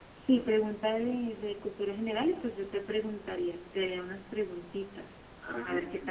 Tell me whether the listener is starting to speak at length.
Yes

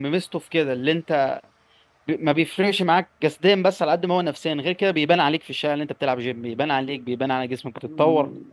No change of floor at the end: No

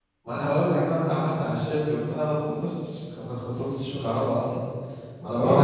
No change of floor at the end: Yes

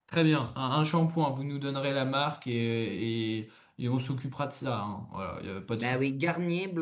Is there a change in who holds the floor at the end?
Yes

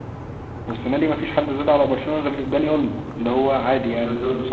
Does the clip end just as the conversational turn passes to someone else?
No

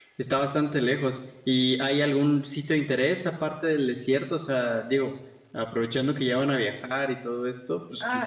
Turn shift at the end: Yes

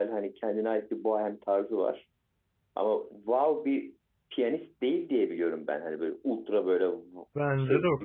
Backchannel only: No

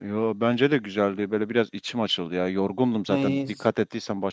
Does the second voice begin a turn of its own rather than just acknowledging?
No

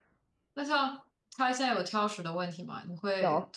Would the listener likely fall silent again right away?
Yes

